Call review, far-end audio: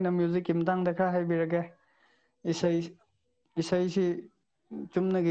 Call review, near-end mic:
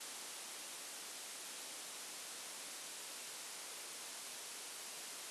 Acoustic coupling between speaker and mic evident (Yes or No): No